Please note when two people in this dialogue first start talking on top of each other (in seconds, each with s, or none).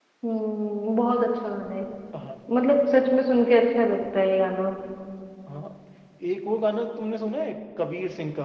none